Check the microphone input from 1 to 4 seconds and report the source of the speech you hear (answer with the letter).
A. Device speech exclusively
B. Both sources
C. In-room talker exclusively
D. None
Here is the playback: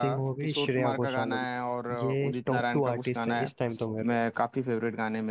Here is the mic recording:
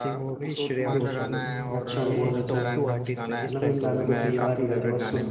B